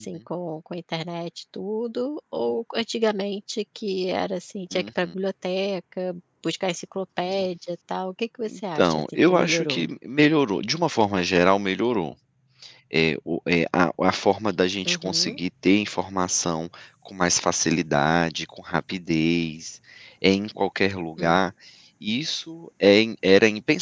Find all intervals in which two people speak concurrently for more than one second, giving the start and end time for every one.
8.5-9.9

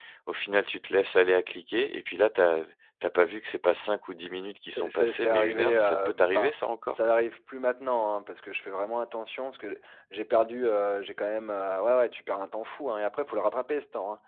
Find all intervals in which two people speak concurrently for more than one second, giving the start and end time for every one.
4.8-6.5

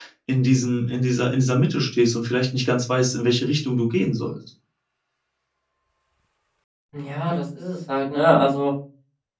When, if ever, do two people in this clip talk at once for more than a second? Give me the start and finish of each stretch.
none

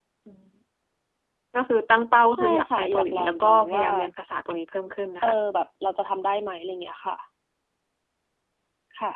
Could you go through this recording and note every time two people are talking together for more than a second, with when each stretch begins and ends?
2.3-3.9

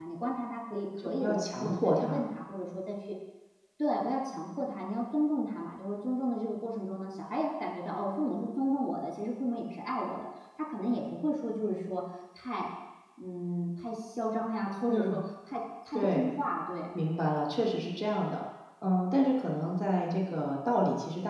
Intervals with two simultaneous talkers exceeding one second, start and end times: 1.0-2.2

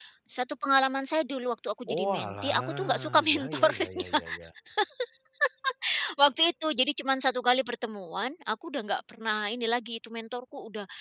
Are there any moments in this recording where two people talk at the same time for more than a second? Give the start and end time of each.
1.9-4.2

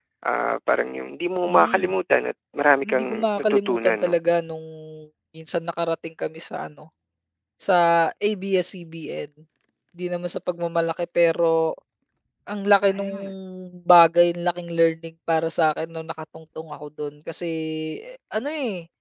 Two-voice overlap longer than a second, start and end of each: 2.8-4.2

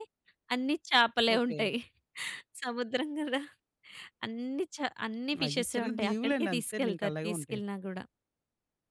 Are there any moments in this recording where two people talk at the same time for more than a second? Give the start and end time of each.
5.4-7.6

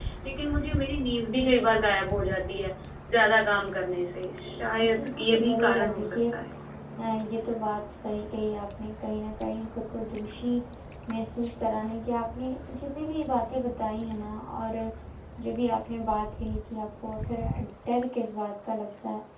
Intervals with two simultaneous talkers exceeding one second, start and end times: 4.8-6.3

